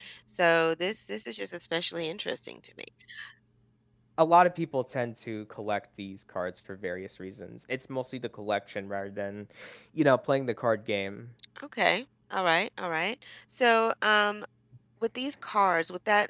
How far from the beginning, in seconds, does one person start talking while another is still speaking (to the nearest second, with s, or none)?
none